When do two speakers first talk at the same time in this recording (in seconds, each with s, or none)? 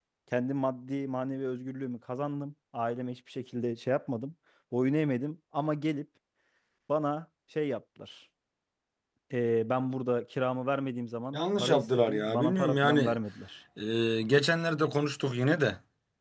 11.3 s